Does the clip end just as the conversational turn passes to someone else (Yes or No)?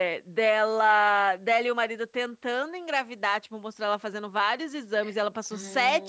No